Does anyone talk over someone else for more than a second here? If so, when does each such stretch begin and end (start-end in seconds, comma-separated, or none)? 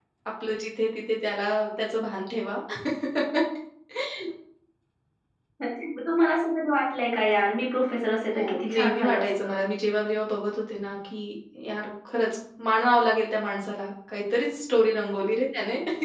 8.3-9.6